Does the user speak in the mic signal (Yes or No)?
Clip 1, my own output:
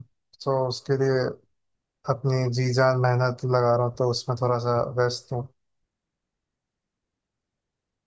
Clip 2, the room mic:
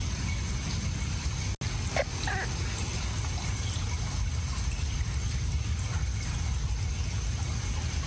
No